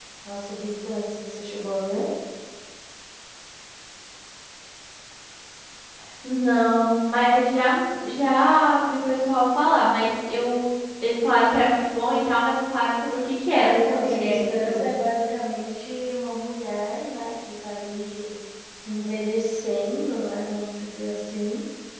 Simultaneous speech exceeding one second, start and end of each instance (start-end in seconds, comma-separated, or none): 13.5-14.9